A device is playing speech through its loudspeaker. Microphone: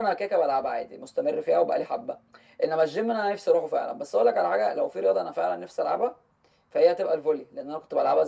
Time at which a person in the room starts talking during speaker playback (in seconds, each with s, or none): none